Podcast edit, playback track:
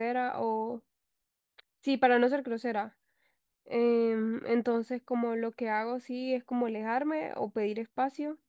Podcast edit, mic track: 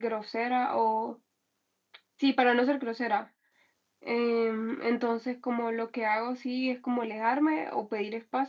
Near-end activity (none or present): none